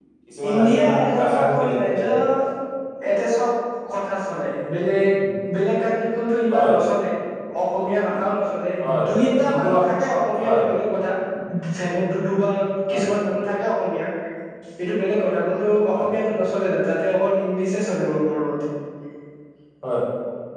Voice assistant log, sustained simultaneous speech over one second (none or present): present